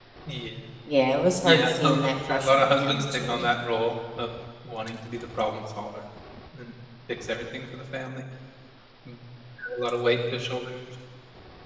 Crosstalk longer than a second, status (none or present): present